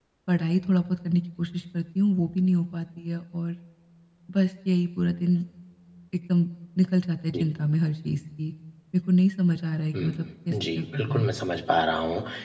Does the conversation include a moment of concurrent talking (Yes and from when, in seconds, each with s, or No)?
Yes, from 9.9 s